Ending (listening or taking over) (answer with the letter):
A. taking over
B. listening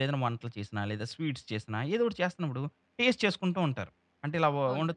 B